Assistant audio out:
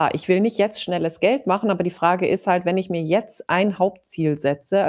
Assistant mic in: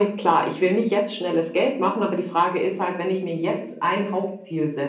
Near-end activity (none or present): none